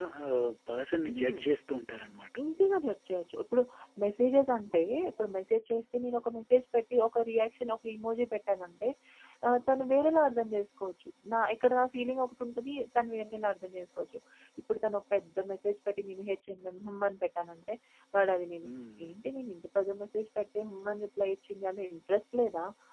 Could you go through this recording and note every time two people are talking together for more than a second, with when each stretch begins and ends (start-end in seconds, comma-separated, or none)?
none